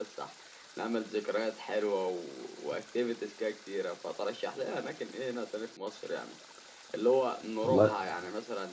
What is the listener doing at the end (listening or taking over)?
listening